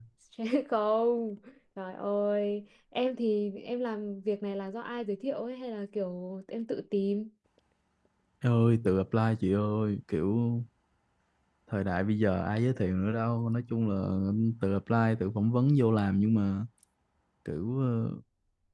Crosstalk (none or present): none